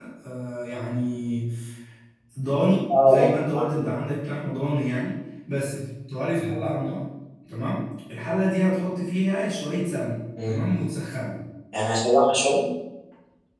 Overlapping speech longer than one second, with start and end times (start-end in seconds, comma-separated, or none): none